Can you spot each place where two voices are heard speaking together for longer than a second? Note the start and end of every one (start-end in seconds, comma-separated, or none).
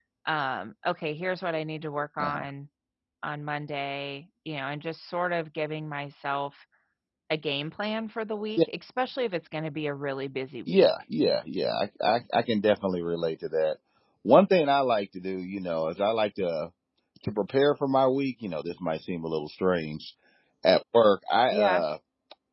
none